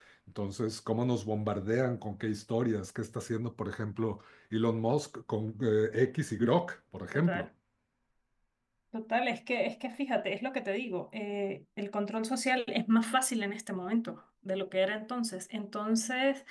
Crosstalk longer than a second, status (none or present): none